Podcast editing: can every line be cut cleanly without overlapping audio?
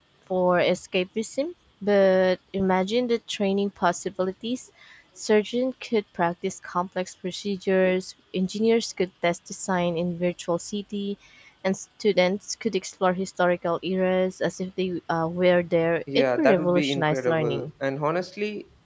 No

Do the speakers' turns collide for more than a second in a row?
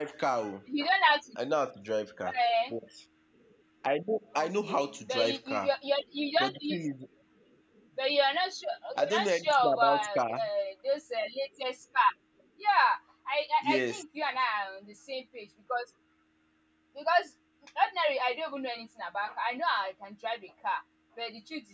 Yes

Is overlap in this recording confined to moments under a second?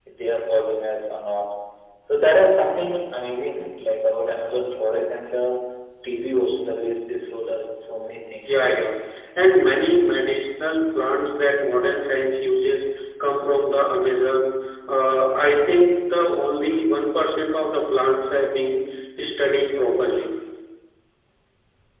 Yes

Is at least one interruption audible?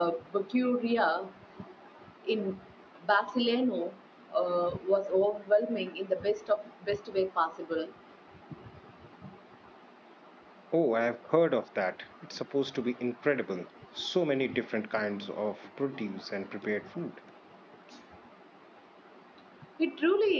No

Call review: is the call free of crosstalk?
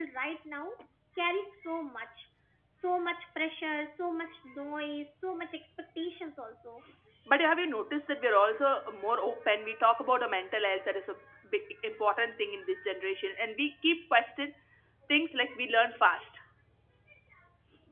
Yes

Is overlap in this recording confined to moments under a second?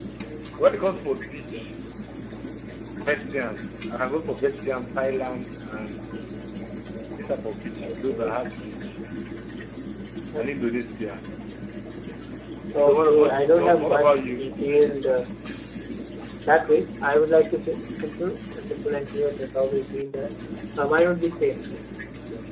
No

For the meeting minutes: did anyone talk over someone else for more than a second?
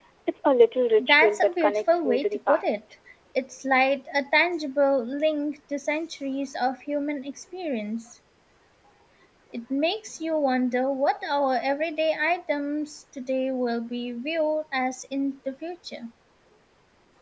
Yes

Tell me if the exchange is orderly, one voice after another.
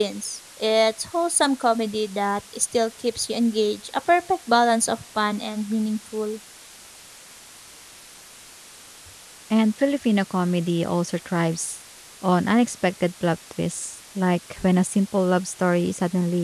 Yes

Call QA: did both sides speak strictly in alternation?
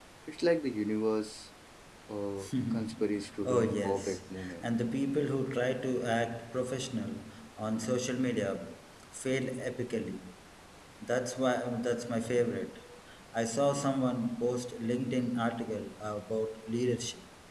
No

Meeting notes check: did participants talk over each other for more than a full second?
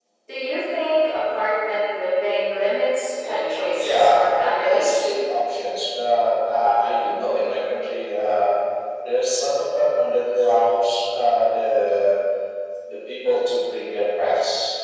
Yes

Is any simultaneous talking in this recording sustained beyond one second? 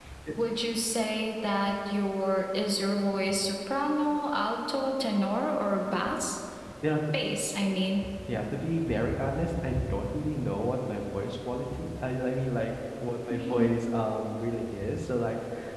No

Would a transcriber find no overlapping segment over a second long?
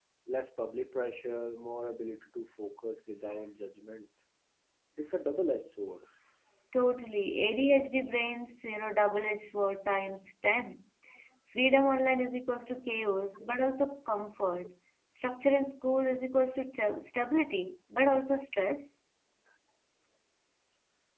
Yes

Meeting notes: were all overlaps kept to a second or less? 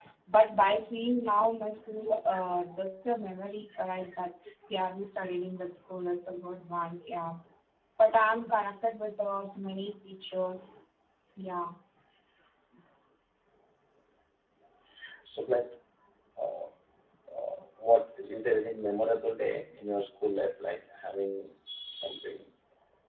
Yes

